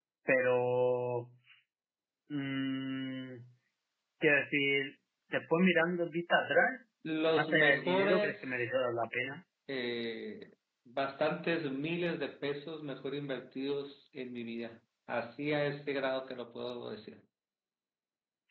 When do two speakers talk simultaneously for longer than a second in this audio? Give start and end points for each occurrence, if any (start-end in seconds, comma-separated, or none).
7.4-8.6